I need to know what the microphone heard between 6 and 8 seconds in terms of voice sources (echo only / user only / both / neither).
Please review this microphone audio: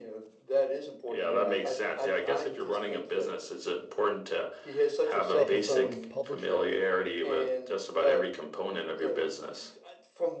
both